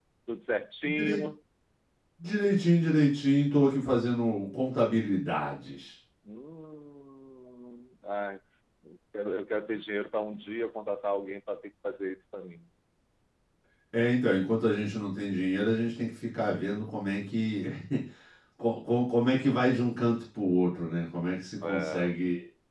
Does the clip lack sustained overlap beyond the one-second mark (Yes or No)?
Yes